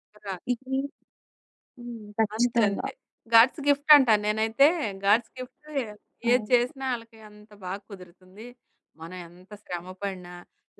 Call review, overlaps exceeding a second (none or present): none